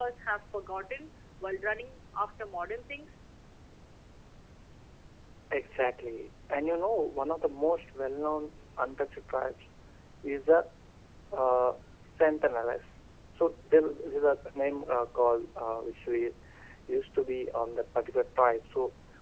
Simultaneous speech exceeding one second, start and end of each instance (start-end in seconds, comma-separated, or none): none